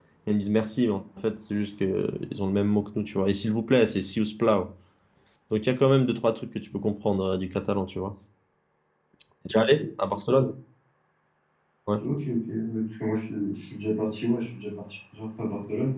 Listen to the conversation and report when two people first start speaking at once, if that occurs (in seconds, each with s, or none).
none